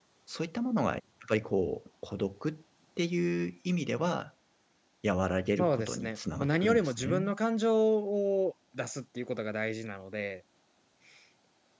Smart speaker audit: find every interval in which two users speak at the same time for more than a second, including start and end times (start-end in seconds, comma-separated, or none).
5.6-7.3